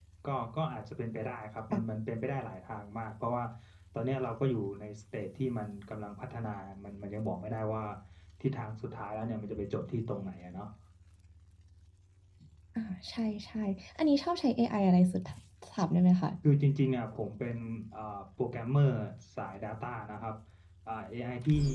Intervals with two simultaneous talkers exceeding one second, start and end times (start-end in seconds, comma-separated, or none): none